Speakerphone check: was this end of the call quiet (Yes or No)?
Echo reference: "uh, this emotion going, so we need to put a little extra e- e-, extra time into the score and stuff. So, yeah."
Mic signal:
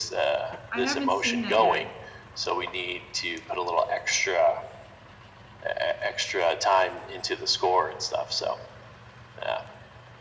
No